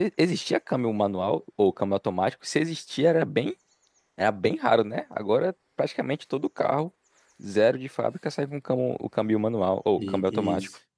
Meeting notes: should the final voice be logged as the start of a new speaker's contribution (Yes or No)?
Yes